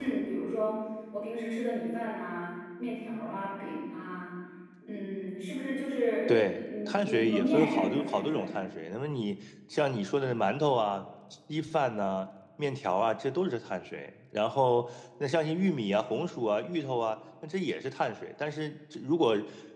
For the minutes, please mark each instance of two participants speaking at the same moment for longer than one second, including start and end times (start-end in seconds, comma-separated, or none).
6.3-8.5